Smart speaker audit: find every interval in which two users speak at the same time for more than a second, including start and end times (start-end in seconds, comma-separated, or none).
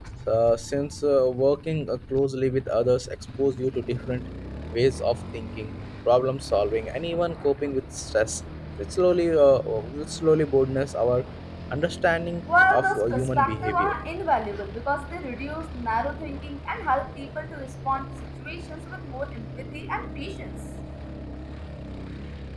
12.7-13.9